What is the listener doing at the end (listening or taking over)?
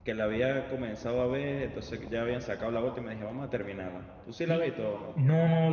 taking over